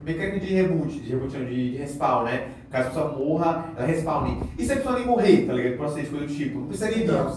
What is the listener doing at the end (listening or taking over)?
listening